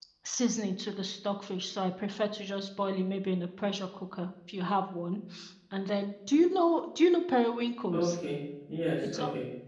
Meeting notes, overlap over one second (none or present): none